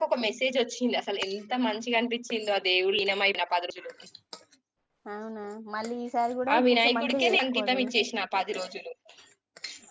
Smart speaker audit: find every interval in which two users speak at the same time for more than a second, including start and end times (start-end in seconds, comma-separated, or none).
6.5-8.0